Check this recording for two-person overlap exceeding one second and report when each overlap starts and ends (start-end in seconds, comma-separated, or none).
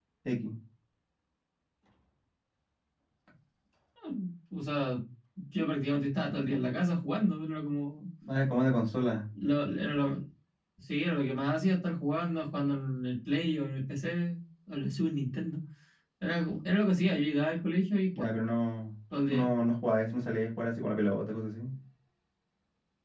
none